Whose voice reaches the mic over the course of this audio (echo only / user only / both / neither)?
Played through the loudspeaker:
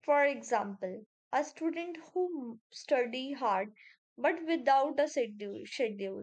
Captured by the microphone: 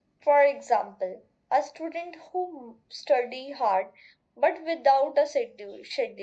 echo only